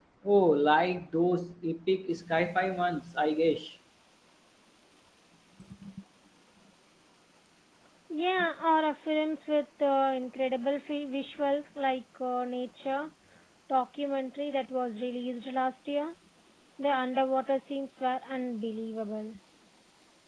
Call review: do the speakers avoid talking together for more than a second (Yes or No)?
Yes